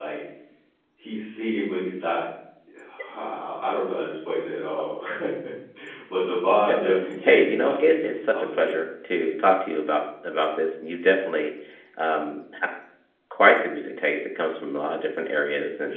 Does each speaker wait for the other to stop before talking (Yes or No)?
No